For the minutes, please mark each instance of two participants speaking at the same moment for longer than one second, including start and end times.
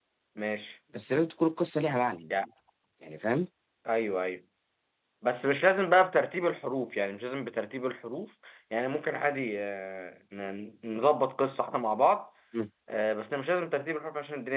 none

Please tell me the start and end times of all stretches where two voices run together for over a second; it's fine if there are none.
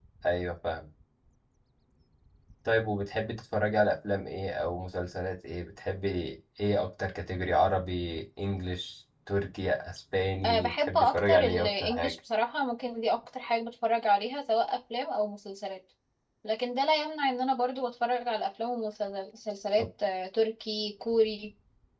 10.4-12.1

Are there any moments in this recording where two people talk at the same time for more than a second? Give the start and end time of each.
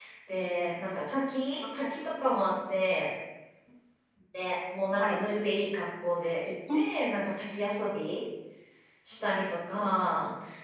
none

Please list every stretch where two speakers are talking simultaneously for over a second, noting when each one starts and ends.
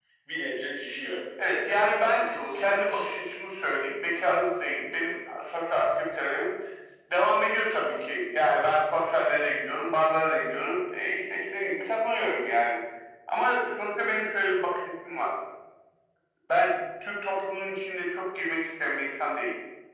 1.7-3.2

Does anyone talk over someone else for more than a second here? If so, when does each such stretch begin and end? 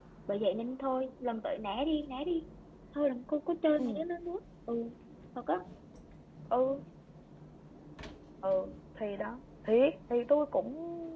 none

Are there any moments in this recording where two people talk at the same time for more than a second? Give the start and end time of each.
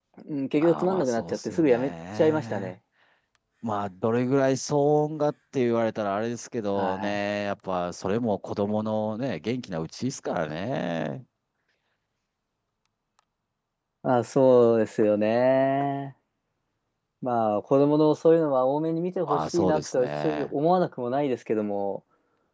0.6-2.7, 19.3-20.5

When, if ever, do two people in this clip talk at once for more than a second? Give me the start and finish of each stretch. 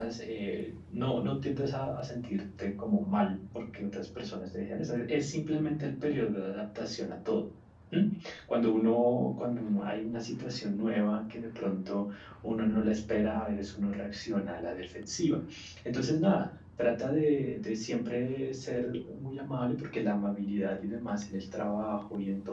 none

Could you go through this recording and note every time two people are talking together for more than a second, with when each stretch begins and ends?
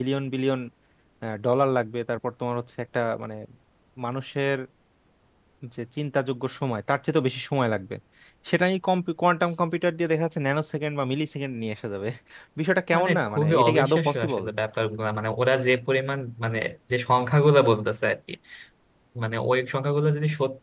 12.9-14.4

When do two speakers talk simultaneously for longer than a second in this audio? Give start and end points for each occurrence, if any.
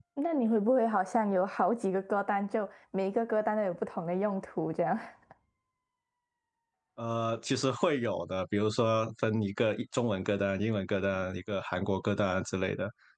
none

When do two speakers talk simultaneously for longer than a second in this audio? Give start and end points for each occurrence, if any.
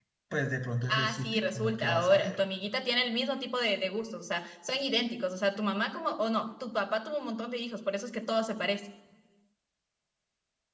0.9-2.3

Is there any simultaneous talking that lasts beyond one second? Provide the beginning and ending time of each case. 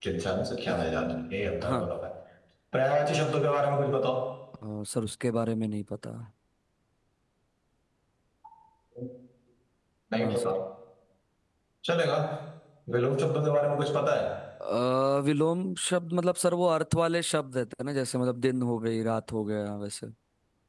none

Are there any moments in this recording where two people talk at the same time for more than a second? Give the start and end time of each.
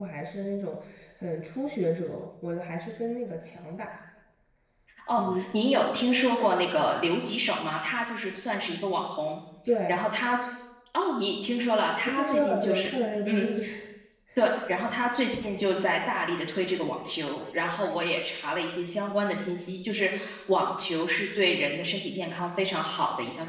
12.0-13.4

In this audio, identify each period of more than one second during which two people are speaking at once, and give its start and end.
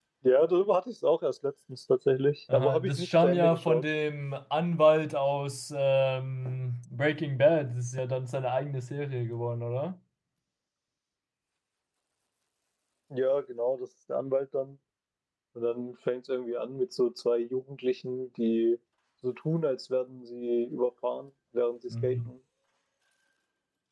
2.5-3.8

